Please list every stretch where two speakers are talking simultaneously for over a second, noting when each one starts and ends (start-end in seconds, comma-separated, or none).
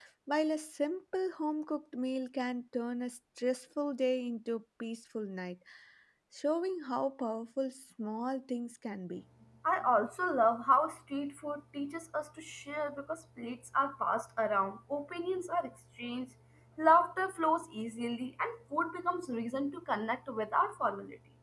none